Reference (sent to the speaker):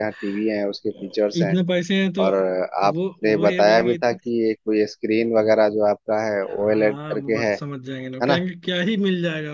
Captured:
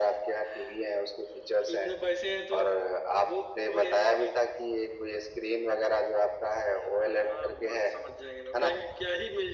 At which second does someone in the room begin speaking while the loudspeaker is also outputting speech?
none

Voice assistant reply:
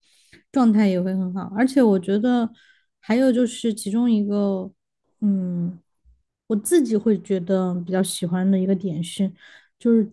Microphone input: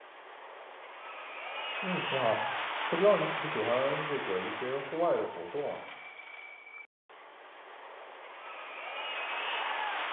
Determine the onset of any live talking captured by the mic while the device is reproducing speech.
1.8 s

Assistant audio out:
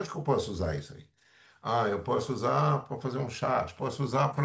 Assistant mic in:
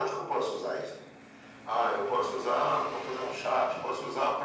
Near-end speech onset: none

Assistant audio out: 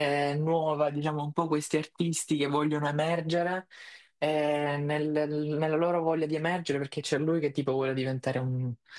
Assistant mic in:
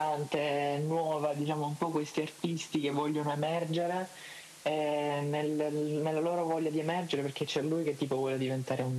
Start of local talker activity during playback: none

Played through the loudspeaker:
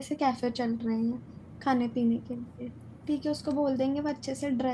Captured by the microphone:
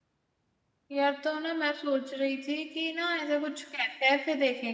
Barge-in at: 0.9 s

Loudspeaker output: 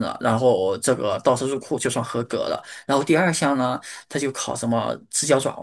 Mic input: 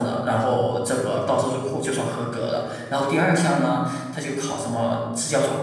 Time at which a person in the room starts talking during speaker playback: none

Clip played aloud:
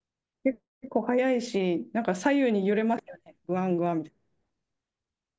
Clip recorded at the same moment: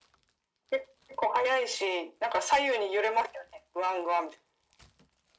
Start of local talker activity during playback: none

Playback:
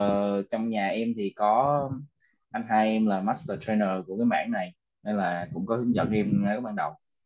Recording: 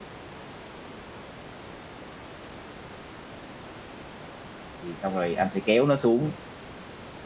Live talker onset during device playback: 4.8 s

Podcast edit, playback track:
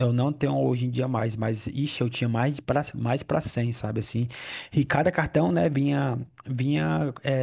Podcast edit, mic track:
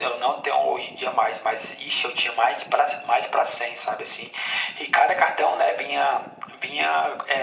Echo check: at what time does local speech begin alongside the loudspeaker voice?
none

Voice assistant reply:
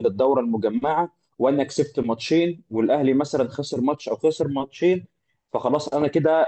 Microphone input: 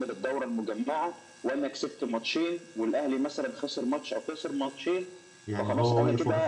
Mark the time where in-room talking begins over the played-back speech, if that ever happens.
5.5 s

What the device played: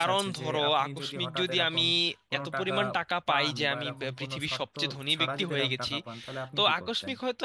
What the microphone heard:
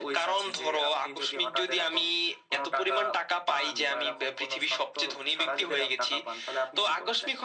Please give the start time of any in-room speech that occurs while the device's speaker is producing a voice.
none

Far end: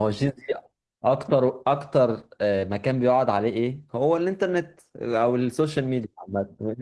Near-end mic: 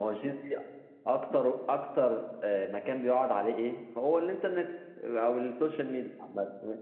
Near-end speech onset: none

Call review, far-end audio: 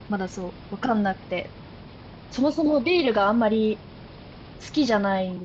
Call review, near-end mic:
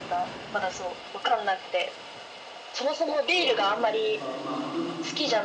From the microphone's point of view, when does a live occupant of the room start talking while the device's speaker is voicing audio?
3.3 s

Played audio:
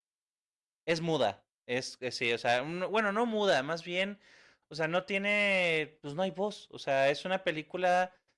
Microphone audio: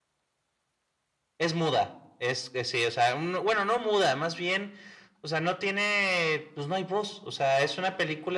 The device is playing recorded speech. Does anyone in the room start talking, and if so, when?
none

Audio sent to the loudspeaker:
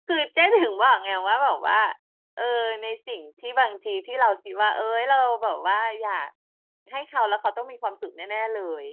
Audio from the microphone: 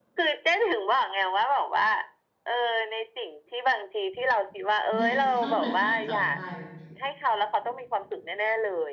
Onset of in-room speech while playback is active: 5.0 s

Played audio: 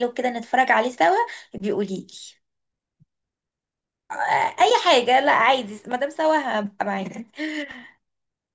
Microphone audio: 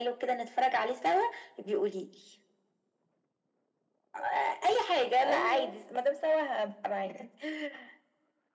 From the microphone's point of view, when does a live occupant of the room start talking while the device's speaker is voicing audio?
5.2 s

